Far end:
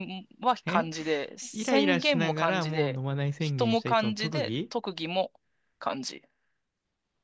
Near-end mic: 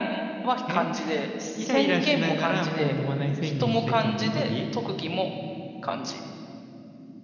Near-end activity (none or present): none